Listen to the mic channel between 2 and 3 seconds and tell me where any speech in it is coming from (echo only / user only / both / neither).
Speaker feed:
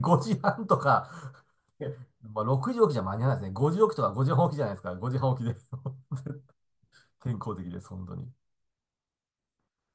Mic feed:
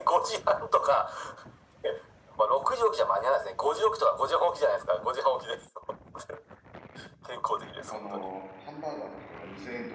echo only